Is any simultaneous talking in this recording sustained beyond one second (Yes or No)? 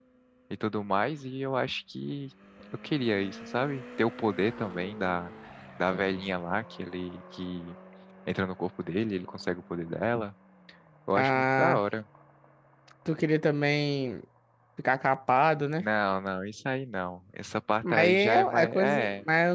Yes